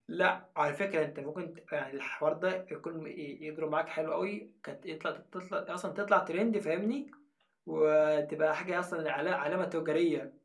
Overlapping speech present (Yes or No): No